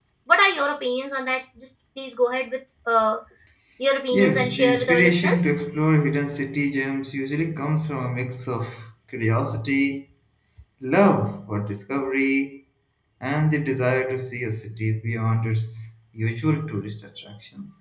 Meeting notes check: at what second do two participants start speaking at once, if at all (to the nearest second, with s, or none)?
4 s